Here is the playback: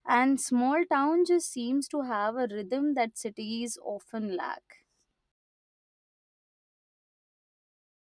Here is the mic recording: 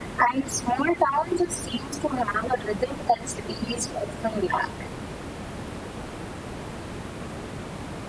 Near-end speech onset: none

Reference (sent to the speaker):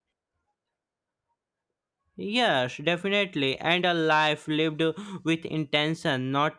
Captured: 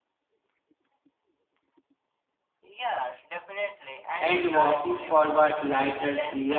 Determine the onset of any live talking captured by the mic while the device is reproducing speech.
4 s

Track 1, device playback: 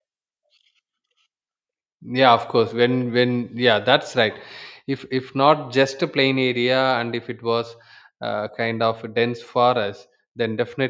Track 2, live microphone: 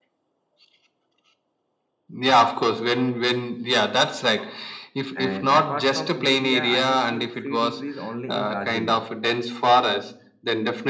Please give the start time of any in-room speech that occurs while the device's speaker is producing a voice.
5 s

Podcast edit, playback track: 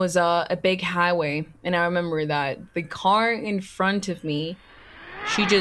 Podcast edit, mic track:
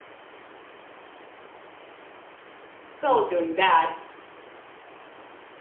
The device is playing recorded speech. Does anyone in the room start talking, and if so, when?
3 s

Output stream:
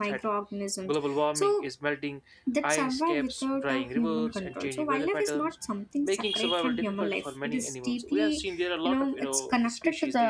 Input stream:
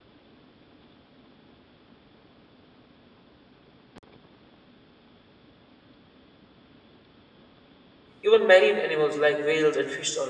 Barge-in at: 8 s

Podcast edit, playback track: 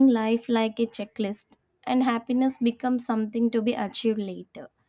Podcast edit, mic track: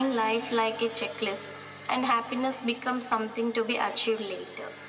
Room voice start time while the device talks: none

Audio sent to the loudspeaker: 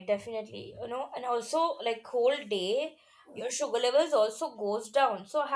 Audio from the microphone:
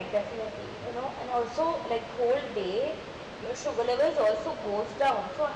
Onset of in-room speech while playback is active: none

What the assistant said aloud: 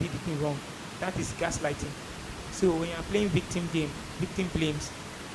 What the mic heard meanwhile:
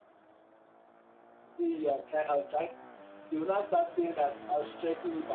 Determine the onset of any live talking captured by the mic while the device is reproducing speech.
1 s

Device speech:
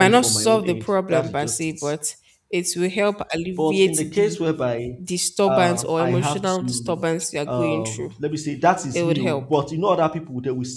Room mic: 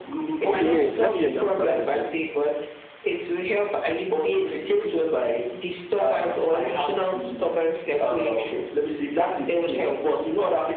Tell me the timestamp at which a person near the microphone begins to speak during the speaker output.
0 s

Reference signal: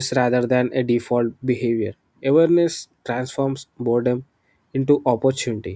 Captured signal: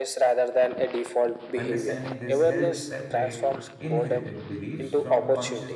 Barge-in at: 2 s

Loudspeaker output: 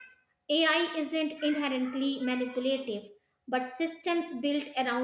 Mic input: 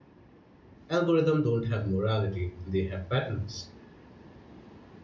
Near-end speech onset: 1 s

